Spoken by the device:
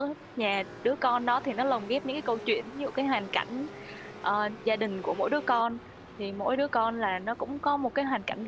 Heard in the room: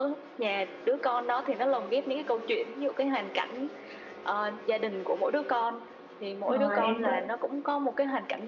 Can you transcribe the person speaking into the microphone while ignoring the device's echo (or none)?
ờ, em có